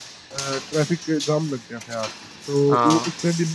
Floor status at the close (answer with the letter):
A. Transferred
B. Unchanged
B